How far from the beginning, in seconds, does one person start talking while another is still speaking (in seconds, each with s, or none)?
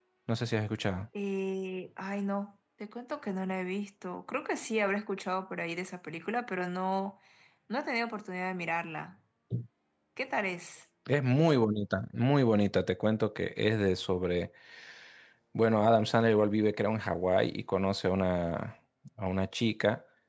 none